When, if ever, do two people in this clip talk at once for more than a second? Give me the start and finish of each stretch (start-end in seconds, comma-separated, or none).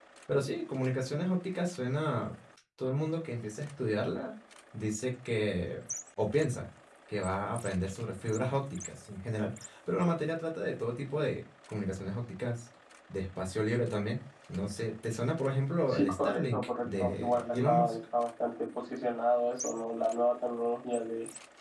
15.9-18.0